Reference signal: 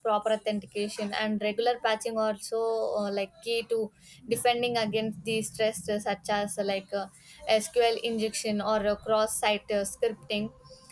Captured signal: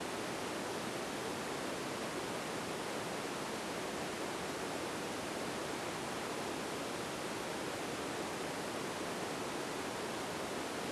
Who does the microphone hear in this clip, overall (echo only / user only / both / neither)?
neither